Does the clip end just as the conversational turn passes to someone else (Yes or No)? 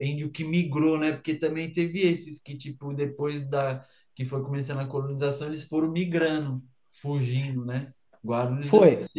Yes